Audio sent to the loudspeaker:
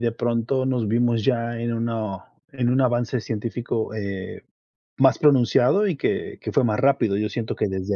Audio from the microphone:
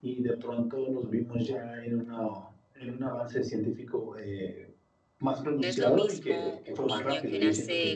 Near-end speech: present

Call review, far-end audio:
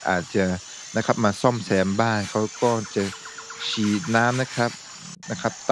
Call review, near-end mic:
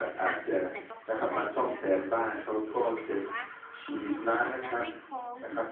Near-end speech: present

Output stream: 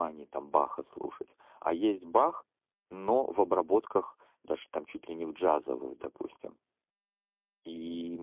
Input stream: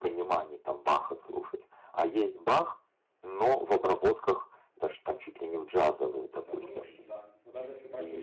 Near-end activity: present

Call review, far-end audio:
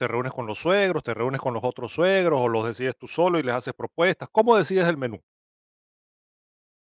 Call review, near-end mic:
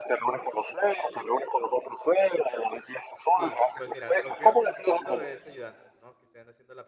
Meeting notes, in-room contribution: present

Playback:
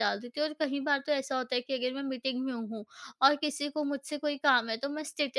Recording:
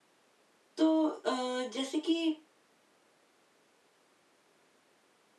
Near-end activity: present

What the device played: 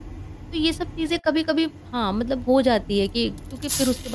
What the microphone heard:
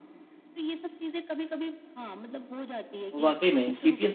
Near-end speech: present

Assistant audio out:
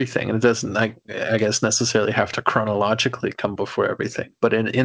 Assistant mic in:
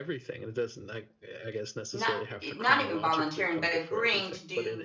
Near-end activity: present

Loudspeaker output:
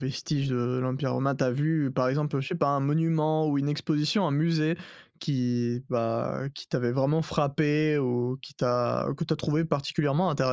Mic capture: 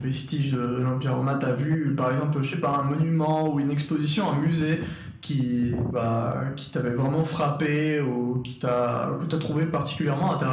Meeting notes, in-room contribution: none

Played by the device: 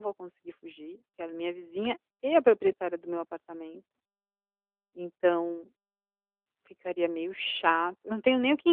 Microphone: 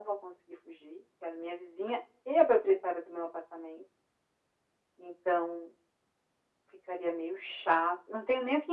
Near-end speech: none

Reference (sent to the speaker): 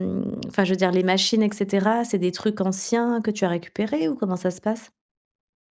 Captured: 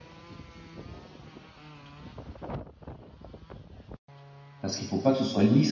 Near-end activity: present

